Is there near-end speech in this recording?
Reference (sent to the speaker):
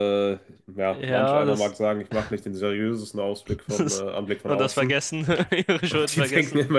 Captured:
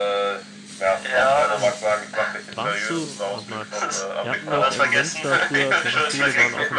Yes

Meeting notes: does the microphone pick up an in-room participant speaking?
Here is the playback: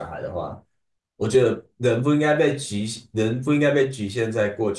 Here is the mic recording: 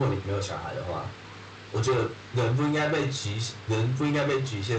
No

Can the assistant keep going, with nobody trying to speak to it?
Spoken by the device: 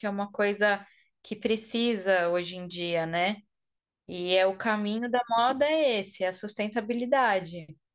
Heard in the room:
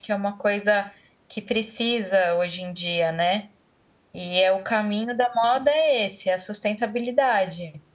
Yes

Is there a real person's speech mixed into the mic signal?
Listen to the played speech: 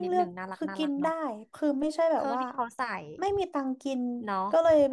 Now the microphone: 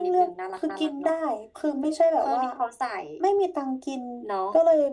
No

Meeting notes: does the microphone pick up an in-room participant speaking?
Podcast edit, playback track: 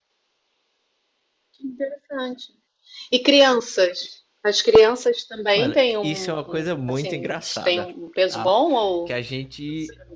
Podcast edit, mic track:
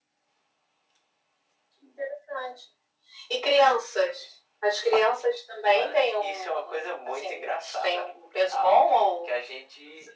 No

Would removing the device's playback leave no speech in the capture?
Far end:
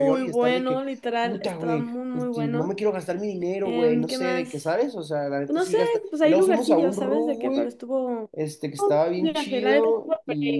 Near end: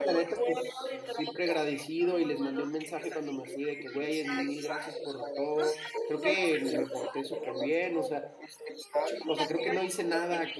No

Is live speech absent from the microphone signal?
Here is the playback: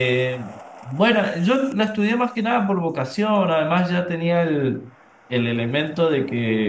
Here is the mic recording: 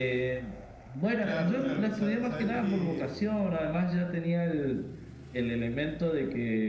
No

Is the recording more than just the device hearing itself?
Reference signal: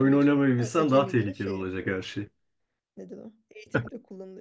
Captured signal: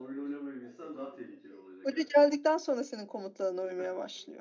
Yes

